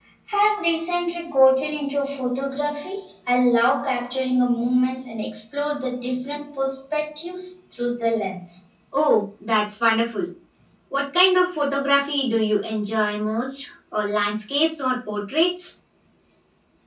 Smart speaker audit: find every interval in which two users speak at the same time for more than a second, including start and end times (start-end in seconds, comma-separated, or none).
none